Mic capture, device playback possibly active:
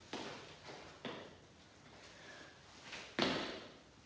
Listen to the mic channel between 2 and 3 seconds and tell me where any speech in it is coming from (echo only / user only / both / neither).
neither